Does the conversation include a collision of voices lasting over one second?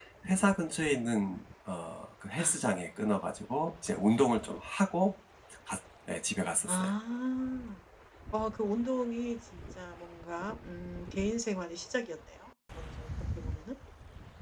No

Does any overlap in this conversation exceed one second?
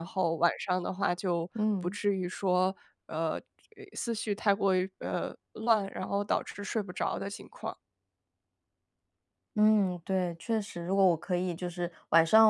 No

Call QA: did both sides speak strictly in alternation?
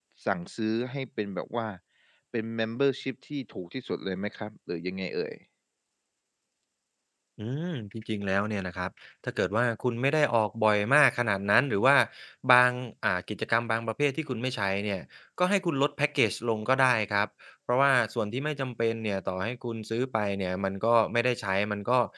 Yes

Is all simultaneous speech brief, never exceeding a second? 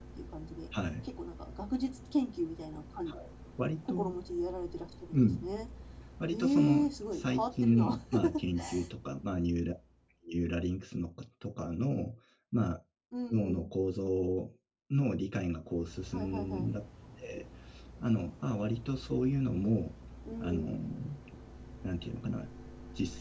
No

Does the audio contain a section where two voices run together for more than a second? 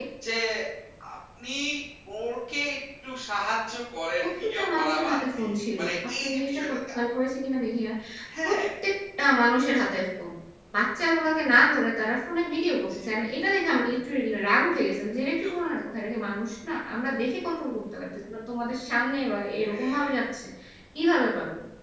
Yes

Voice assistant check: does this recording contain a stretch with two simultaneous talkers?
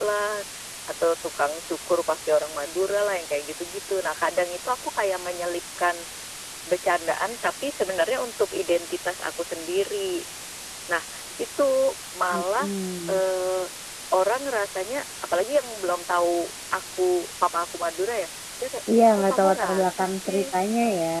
Yes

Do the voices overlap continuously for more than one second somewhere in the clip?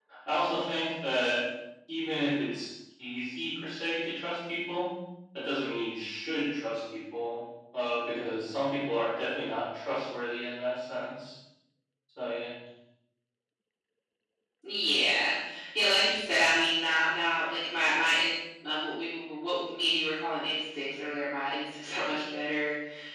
No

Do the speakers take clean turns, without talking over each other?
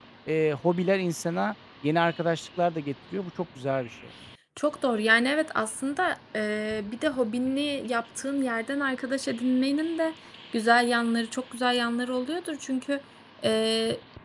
Yes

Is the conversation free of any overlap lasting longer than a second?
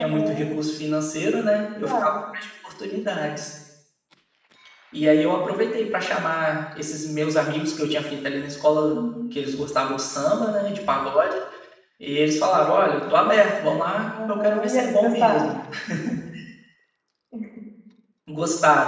No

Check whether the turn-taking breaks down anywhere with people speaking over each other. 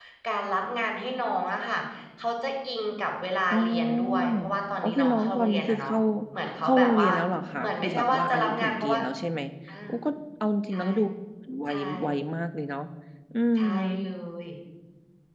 Yes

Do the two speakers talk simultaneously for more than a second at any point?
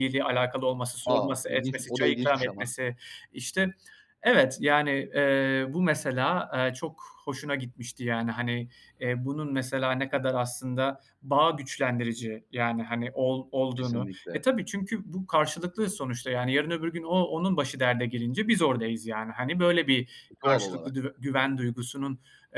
Yes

